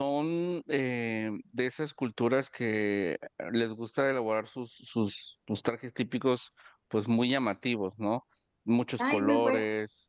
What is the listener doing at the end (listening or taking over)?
taking over